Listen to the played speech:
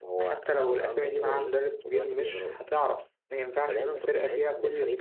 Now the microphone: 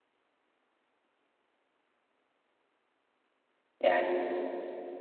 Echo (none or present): none